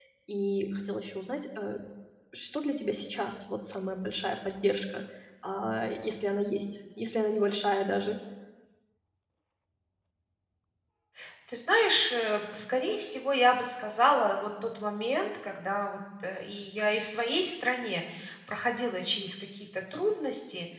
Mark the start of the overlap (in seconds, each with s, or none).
none